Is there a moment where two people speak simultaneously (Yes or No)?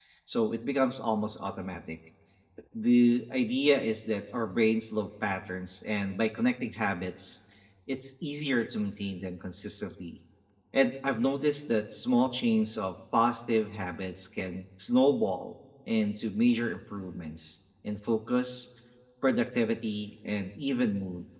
No